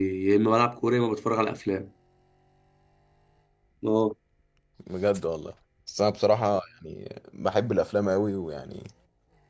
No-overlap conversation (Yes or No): Yes